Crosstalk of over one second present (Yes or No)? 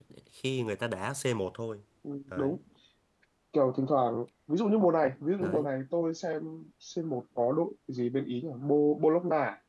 No